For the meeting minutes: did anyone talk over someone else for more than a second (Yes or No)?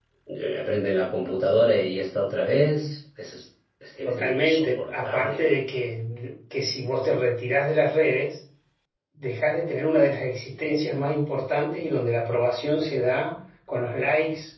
Yes